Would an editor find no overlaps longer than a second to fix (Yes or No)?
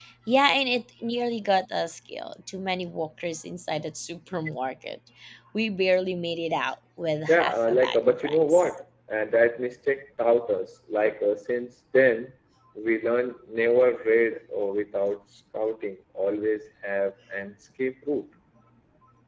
No